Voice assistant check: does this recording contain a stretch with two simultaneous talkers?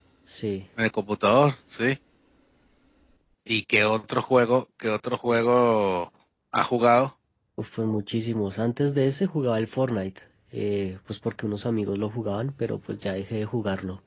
No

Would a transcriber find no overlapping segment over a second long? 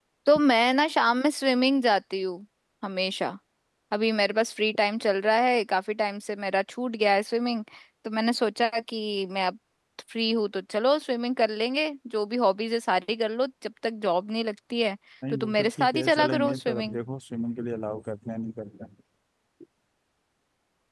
No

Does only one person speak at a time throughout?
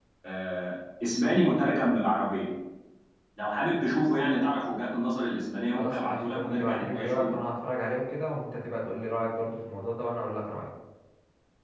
No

